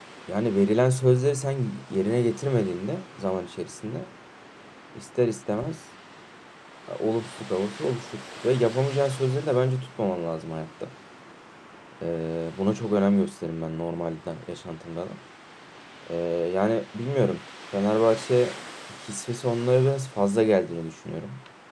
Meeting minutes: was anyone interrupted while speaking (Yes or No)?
No